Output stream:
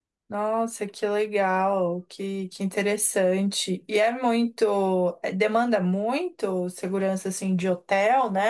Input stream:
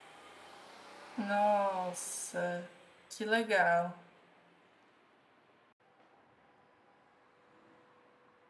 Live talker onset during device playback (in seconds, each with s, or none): 1.1 s